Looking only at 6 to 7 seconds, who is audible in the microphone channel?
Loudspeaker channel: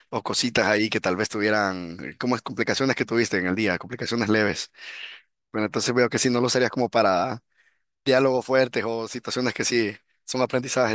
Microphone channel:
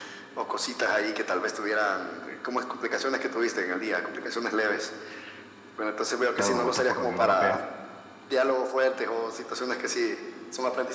both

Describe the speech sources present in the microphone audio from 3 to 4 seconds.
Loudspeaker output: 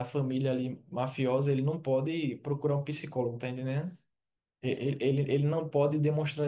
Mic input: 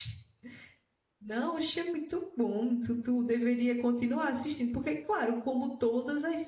user only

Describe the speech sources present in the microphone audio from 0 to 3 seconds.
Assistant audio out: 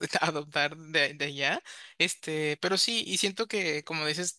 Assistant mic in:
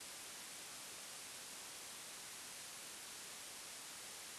neither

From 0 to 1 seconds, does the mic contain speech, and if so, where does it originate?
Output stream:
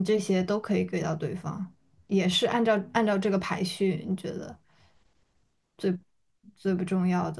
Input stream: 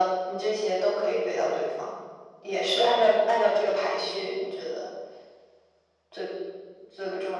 echo only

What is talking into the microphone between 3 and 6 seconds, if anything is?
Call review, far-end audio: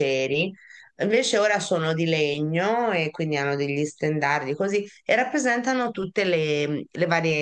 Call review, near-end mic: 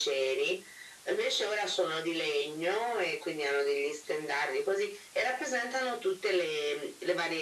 echo only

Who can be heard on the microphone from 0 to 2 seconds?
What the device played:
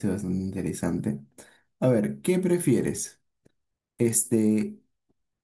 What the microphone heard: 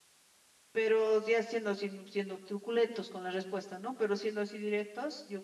user only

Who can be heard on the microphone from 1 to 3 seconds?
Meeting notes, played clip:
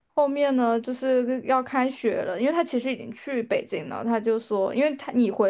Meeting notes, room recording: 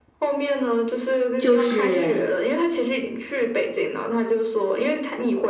both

